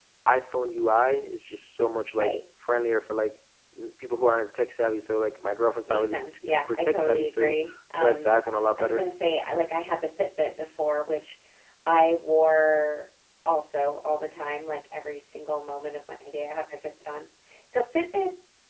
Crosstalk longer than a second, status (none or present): present